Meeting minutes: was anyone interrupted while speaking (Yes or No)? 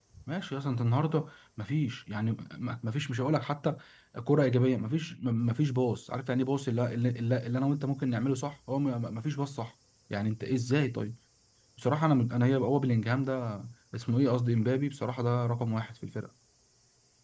No